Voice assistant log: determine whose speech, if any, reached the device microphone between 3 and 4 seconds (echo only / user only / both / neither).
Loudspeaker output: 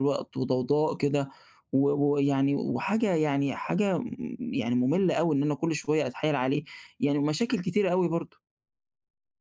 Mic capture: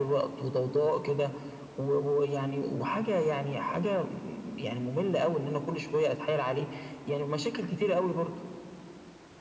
echo only